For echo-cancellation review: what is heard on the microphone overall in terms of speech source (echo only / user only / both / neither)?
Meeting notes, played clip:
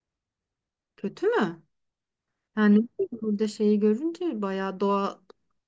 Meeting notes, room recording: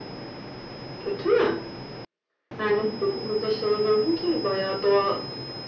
echo only